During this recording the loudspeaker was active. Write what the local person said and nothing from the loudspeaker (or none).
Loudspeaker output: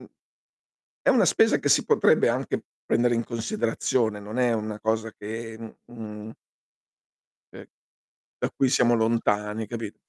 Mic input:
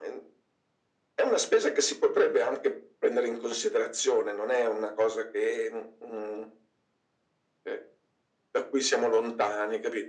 none